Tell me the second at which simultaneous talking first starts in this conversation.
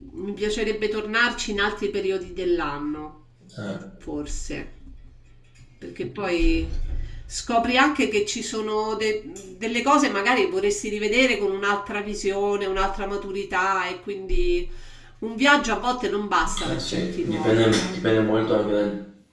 16.4 s

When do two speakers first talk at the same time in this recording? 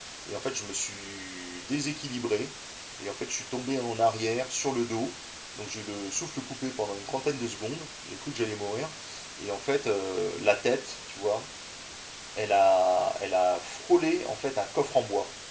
none

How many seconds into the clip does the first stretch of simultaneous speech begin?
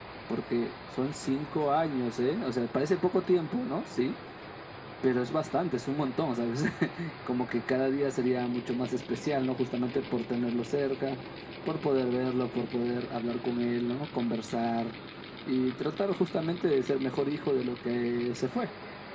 none

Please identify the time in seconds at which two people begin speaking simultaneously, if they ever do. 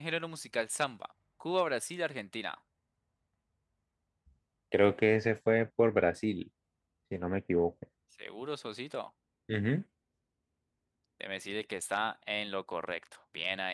none

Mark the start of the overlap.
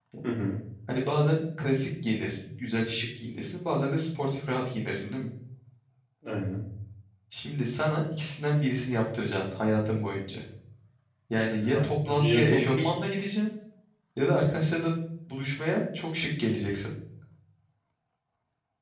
11.5 s

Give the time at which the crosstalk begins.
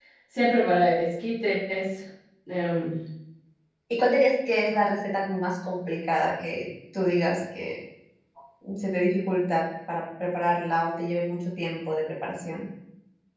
none

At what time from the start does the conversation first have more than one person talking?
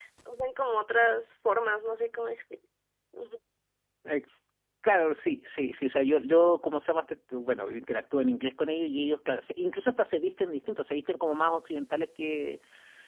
none

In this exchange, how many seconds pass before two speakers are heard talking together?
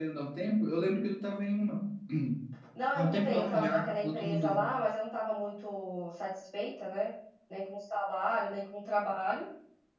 3.0 s

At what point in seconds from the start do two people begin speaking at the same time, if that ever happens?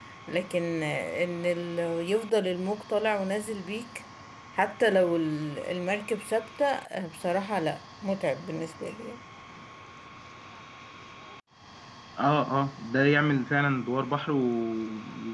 none

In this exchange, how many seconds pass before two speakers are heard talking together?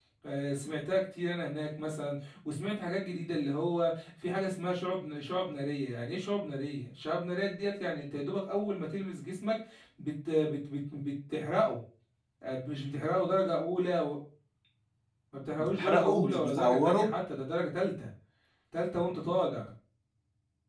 15.6 s

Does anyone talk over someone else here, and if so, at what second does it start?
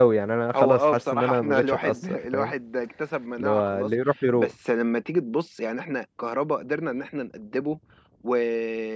0.5 s

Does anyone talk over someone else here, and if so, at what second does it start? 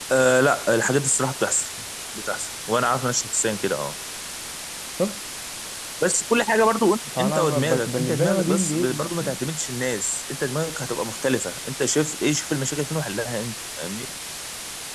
7.1 s

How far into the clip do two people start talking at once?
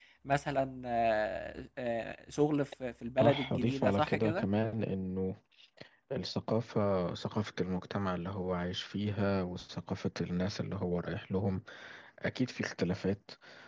3.2 s

